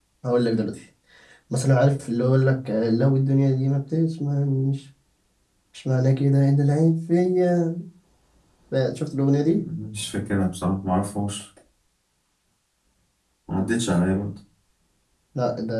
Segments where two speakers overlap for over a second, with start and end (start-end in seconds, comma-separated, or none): none